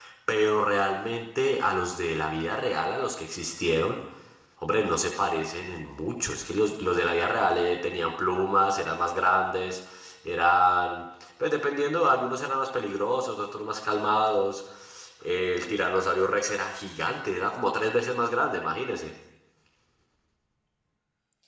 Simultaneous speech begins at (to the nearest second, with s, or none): none